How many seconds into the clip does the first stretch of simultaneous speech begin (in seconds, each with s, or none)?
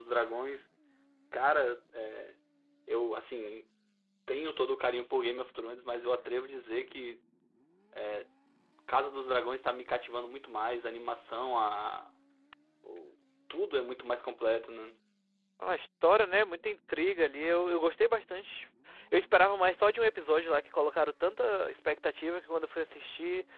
none